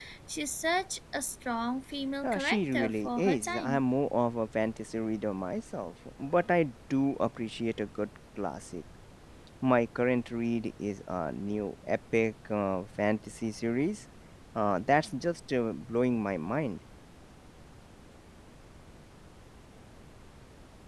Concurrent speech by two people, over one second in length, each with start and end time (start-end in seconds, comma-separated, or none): 2.2-3.8